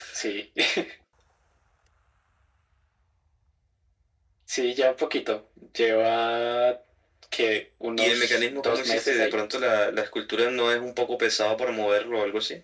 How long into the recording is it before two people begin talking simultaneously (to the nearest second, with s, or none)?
8 s